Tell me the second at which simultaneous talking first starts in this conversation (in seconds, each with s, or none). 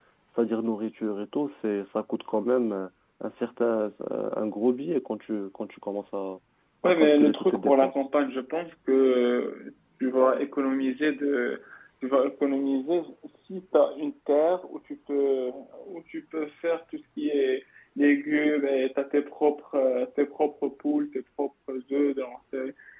6.8 s